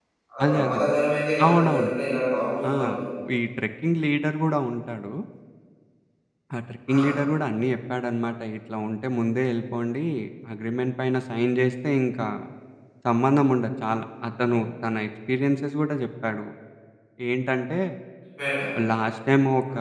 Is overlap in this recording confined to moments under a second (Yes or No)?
Yes